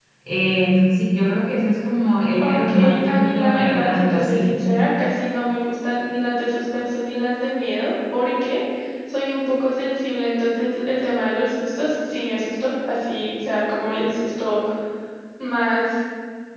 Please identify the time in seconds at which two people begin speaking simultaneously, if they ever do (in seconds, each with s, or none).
2.3 s